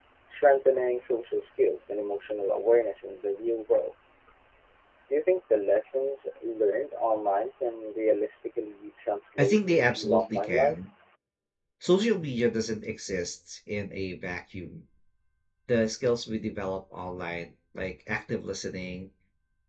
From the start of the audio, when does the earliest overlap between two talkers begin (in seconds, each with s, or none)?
9.4 s